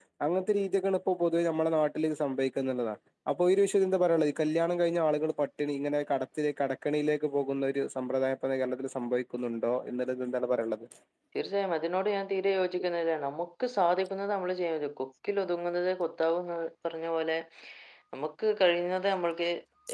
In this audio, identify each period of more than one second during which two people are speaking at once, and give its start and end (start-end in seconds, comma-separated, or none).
none